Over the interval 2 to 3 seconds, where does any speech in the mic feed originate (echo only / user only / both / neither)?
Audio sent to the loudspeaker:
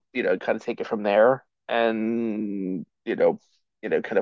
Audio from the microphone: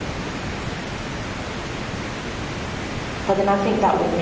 neither